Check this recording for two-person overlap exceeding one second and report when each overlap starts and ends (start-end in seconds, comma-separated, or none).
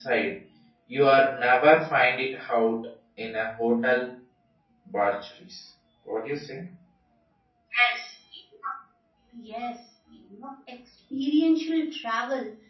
none